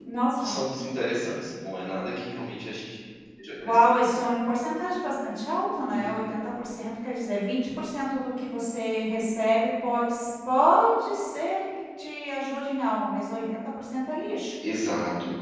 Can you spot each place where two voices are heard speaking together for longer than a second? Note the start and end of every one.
none

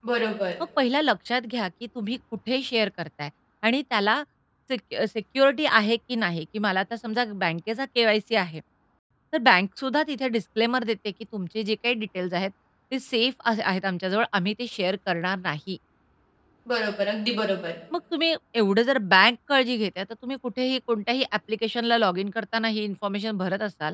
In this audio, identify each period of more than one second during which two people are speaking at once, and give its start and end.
none

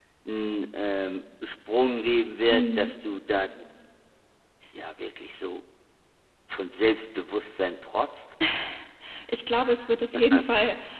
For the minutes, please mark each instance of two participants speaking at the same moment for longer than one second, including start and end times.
none

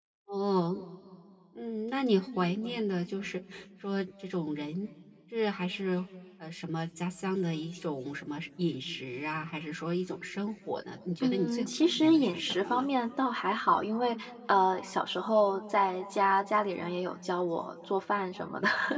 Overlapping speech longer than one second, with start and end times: 11.2-12.8

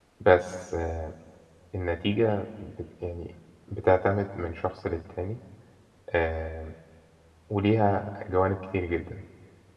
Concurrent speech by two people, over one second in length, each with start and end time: none

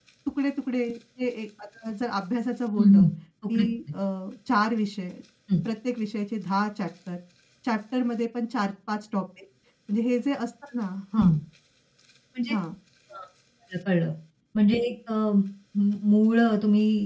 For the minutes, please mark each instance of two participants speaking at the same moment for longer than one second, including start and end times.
none

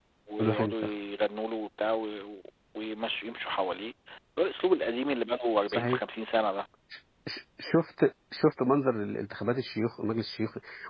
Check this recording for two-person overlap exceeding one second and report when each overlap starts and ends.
none

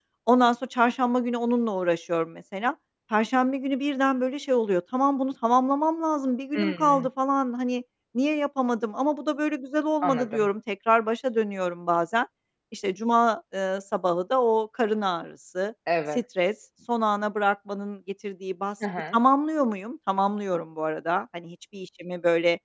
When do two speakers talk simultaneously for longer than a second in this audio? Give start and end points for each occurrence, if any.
none

